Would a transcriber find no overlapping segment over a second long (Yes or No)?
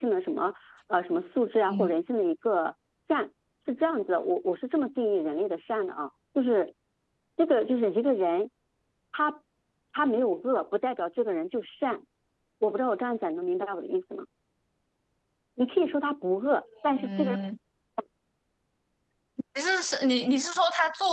Yes